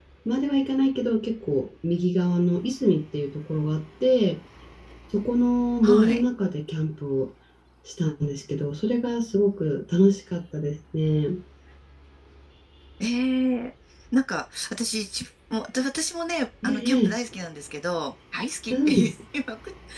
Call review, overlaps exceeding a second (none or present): none